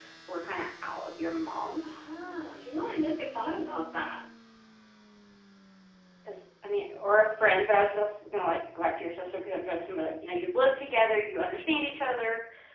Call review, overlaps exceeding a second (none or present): none